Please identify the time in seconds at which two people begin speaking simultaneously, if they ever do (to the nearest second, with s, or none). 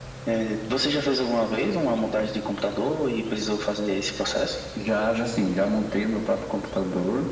none